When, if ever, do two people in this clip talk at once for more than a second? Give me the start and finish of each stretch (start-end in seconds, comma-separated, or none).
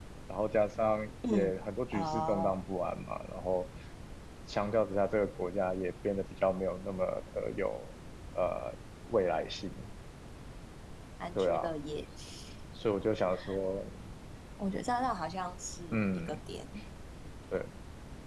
1.3-2.6